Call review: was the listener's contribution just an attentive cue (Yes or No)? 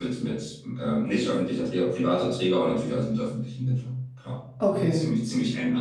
Yes